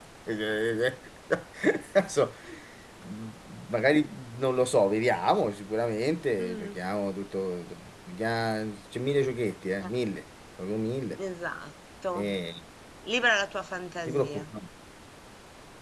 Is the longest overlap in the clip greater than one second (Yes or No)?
No